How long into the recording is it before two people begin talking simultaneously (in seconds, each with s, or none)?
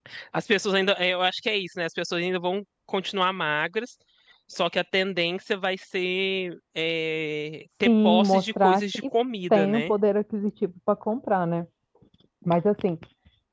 7.8 s